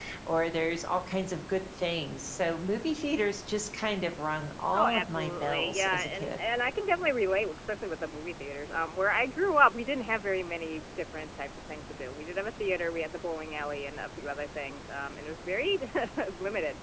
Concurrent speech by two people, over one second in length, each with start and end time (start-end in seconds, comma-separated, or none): 4.7-6.4